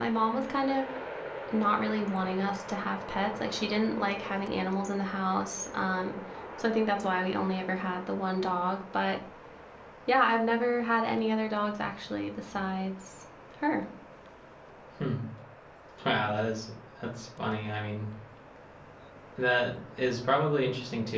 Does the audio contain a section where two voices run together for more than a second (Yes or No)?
No